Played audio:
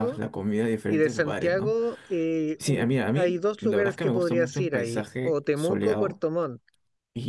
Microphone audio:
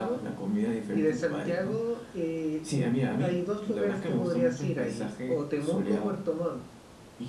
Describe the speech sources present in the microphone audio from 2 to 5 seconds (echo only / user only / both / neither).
echo only